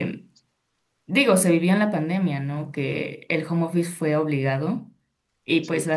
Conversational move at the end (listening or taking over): listening